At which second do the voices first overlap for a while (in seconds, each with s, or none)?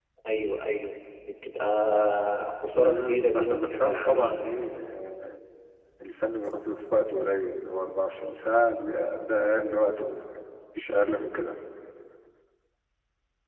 2.7 s